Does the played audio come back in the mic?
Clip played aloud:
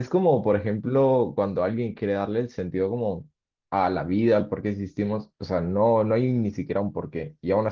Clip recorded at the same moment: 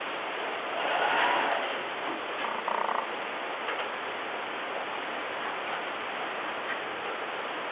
No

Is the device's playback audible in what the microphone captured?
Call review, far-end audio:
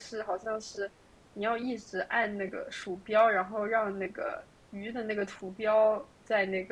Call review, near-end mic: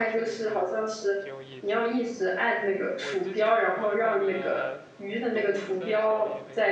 Yes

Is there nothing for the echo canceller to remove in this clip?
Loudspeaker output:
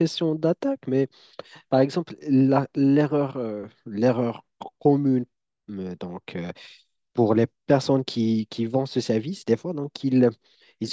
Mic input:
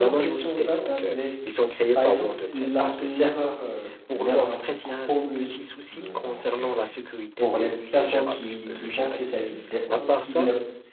No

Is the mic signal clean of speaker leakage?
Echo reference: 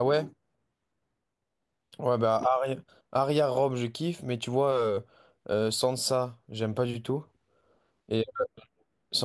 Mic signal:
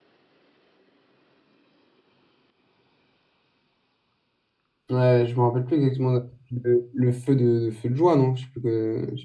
Yes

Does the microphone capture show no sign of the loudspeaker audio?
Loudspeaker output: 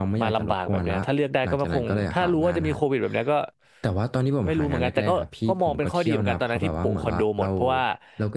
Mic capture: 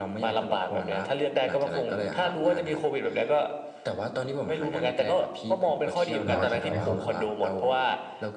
No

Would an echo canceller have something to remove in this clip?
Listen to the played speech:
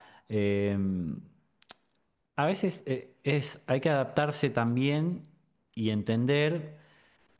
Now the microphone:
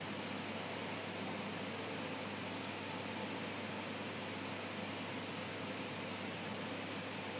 No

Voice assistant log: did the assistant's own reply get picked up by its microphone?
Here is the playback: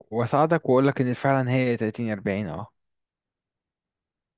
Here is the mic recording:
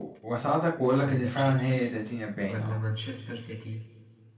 Yes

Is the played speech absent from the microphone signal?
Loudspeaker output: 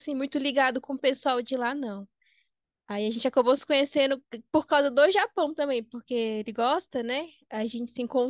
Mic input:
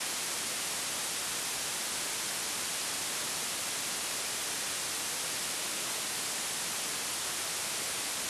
Yes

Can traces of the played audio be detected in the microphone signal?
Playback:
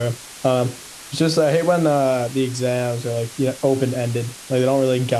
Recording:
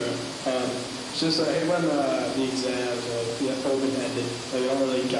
Yes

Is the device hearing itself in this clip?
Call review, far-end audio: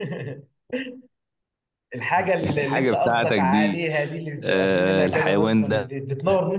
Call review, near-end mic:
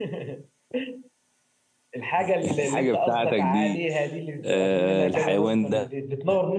Yes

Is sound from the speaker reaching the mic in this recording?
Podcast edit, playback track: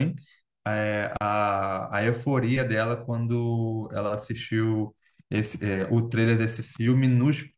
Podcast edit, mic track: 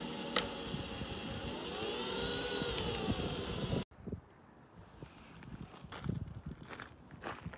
No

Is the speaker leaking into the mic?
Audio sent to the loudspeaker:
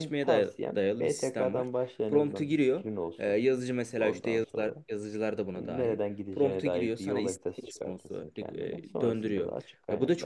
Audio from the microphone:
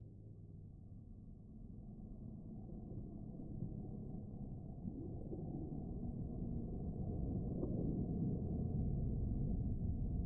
No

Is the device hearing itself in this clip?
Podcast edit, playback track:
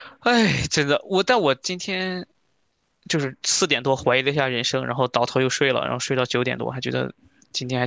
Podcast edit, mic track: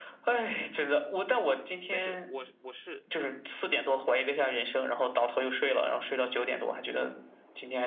Yes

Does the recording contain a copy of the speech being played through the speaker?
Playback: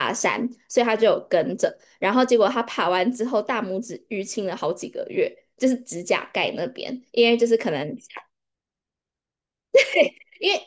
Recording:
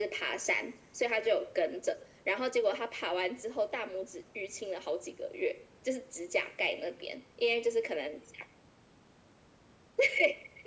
Yes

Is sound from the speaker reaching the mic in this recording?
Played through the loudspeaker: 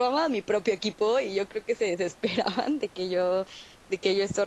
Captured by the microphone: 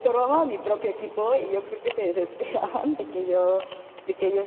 Yes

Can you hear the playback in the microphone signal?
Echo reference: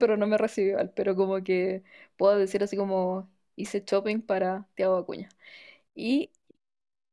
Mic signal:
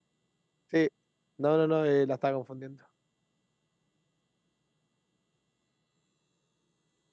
No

